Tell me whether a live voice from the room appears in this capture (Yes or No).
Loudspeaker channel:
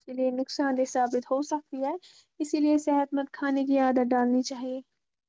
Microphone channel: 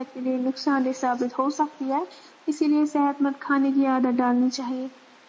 No